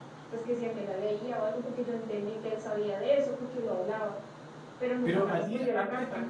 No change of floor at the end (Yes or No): No